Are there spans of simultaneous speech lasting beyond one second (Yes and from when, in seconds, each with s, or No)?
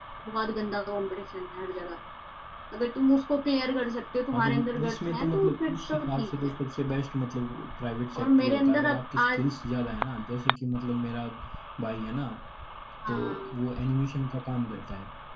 Yes, from 4.3 s